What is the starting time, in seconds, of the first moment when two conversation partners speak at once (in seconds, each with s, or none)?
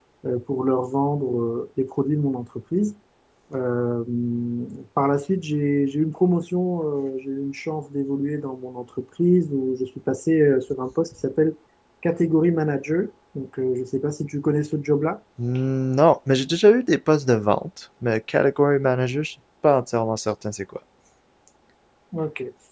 none